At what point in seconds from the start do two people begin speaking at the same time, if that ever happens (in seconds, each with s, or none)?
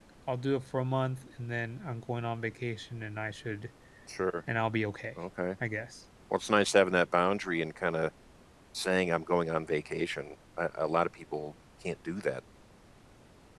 none